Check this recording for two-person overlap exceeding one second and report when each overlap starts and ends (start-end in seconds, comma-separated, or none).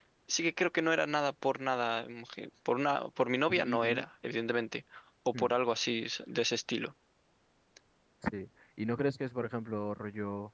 none